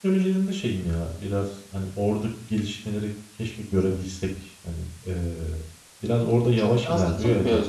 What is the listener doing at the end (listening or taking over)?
taking over